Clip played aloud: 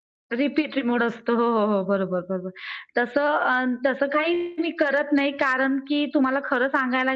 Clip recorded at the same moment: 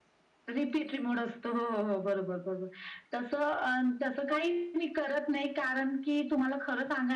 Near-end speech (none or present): none